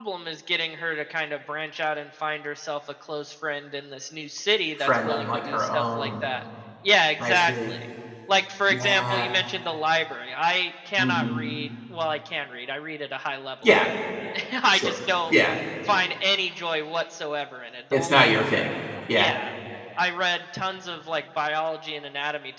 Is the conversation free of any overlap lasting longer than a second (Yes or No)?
No